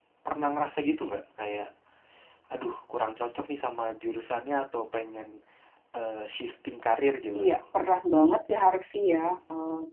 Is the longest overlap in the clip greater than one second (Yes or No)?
No